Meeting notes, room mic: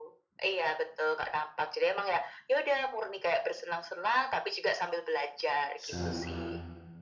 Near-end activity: present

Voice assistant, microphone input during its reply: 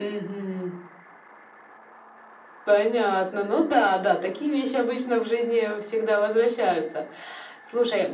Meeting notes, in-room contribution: none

